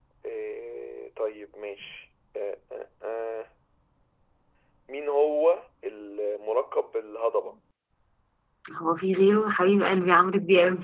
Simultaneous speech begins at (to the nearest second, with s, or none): none